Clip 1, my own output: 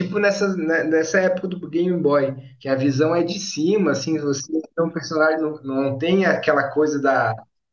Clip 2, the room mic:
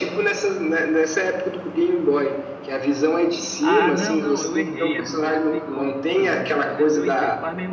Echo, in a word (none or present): present